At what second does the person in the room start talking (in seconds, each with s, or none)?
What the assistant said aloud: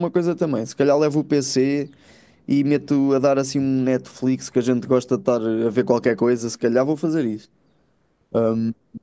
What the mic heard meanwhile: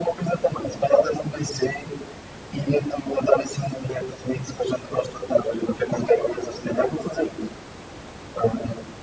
none